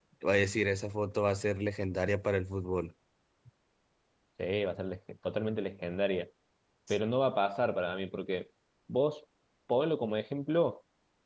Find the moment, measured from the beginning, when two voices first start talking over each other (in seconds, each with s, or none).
none